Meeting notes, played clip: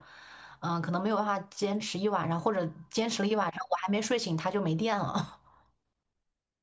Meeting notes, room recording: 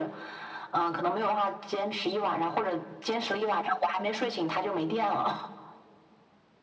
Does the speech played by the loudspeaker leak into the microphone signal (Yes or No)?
Yes